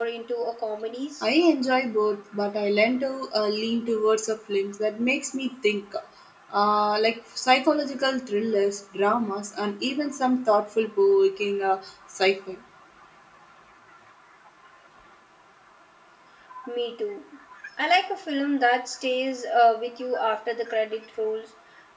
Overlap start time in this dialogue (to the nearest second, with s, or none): none